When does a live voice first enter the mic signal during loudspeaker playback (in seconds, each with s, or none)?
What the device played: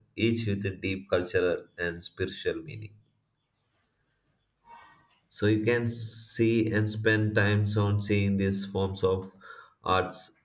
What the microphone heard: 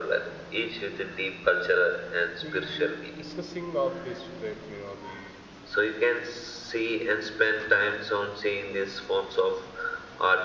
2.4 s